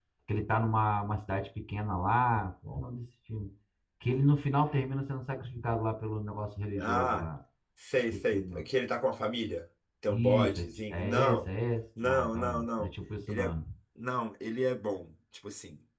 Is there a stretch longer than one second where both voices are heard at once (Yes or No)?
Yes